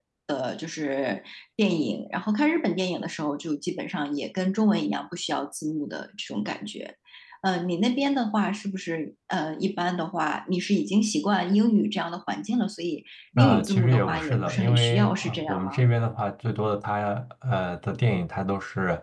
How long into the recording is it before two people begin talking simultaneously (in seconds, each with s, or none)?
13.4 s